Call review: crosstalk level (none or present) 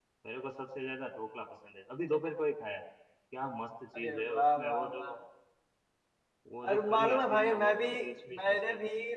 present